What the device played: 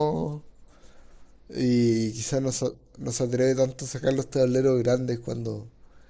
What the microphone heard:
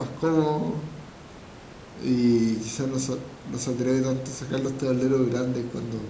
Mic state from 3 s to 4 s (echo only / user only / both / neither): echo only